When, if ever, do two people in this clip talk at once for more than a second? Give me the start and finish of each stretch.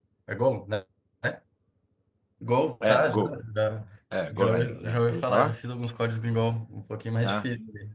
4.3-5.5

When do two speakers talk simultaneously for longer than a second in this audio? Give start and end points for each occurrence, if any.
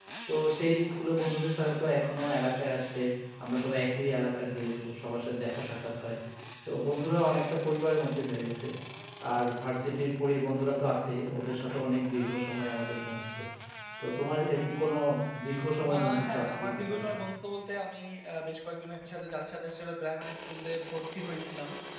15.9-17.1

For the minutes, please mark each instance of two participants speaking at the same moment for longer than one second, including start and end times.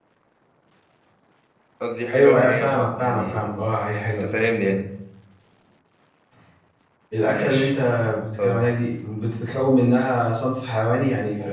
2.1-3.4

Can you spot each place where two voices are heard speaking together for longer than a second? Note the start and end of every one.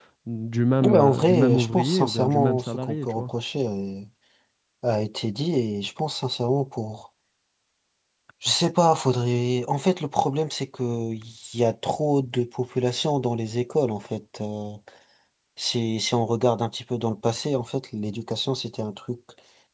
0.8-3.3

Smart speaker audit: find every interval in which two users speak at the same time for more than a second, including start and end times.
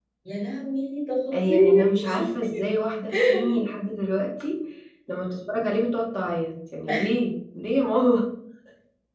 1.3-2.6

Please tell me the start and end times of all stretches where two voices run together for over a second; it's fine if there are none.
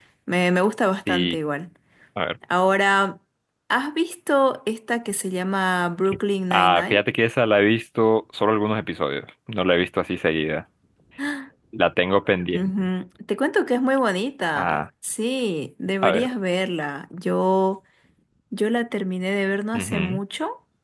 none

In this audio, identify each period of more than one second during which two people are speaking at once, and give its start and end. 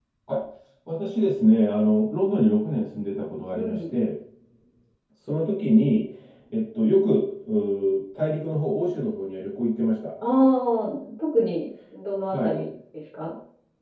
none

